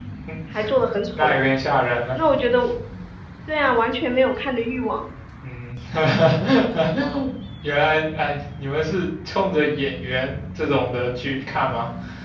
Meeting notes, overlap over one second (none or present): none